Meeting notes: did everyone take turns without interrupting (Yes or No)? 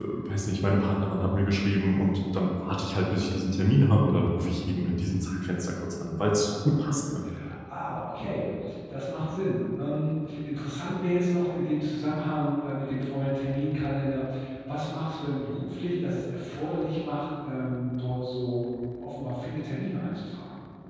Yes